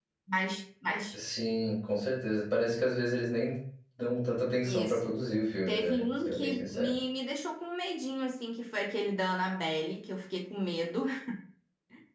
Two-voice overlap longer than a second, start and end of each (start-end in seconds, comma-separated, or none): 5.7-6.9